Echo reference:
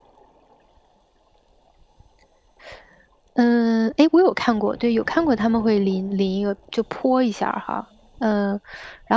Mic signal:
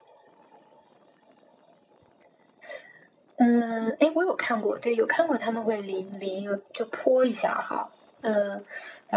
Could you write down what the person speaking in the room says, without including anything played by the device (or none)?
none